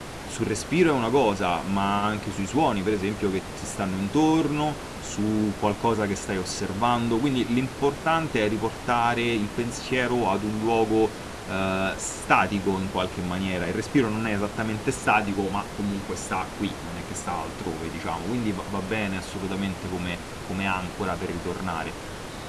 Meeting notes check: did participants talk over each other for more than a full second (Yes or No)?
No